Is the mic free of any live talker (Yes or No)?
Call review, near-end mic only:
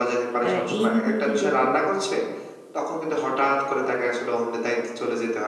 No